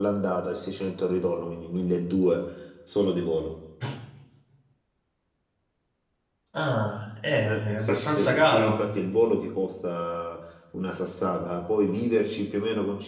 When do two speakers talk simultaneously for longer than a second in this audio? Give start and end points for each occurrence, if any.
7.4-8.9

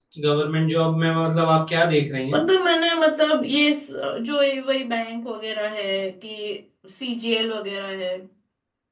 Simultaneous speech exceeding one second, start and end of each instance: none

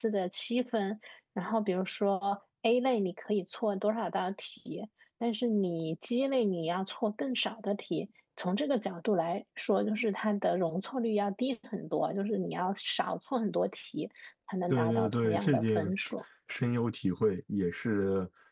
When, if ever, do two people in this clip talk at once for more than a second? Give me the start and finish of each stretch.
14.7-15.9

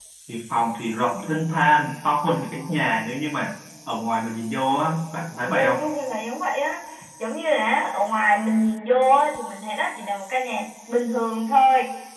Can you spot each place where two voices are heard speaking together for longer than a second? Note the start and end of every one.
none

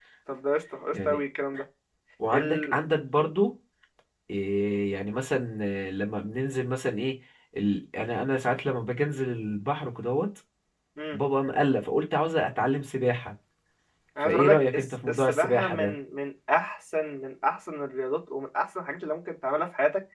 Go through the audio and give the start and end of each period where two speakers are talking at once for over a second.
14.2-15.9

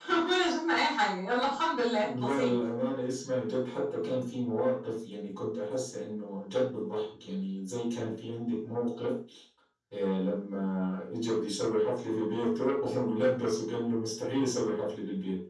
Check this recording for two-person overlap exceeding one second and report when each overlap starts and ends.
none

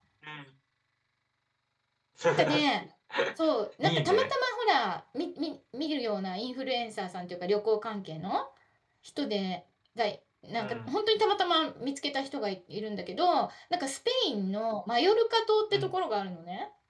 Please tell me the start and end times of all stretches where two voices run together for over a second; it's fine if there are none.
none

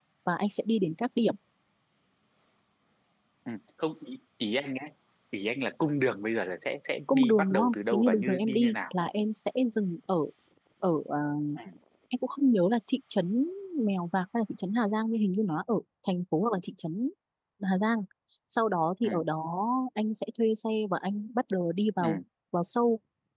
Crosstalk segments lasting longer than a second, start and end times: 7.1-8.9

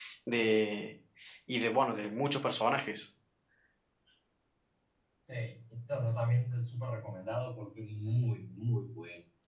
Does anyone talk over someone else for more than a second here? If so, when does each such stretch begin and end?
none

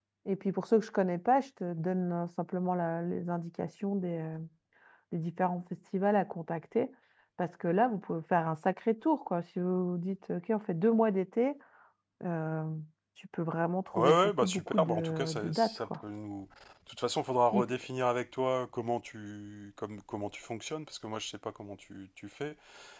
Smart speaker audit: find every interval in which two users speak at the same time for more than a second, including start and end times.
13.9-16.0

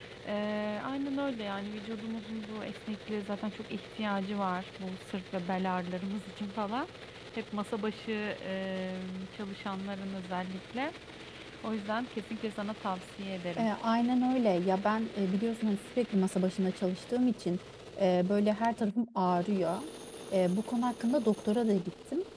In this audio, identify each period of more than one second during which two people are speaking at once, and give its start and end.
none

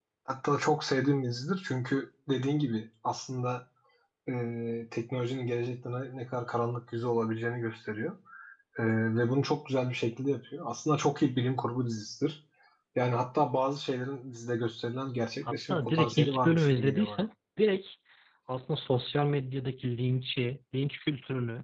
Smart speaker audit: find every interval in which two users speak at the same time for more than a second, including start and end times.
15.5-17.2

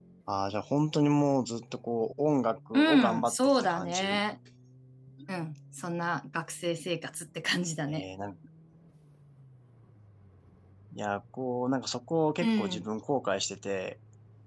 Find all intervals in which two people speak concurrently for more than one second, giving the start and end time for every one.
2.7-4.2

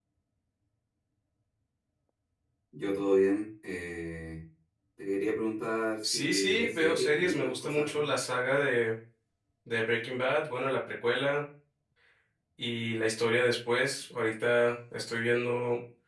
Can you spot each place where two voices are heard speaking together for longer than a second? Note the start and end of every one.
6.0-8.1

